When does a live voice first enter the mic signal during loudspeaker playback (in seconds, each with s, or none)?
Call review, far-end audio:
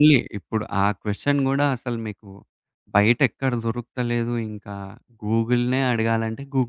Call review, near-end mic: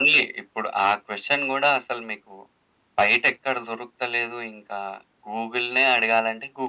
none